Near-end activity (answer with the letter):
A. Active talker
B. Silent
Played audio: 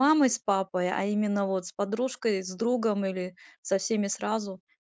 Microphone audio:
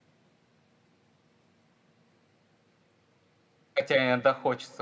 A